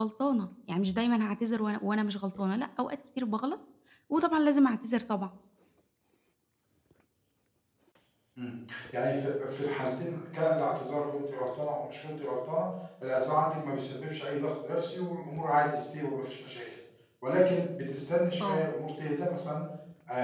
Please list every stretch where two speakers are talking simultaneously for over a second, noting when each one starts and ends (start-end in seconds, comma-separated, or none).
none